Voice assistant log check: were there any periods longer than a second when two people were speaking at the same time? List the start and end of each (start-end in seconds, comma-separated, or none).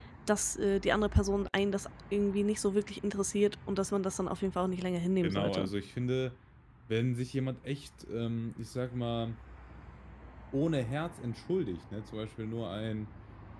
none